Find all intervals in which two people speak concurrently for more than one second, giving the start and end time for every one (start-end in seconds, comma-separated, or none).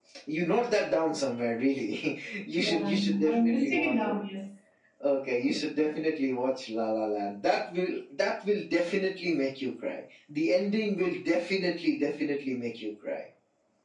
2.6-3.9